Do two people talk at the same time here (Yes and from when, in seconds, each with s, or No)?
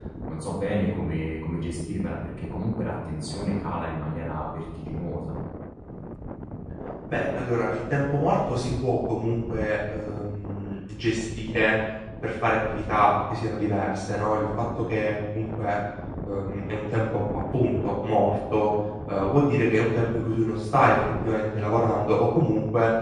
No